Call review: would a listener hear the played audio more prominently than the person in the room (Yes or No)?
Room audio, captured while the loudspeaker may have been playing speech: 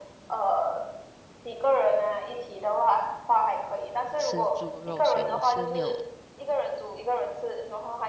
Yes